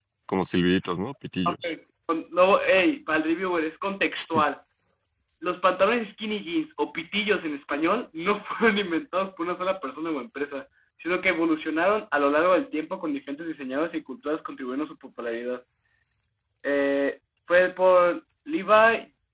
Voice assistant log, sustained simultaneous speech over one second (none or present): none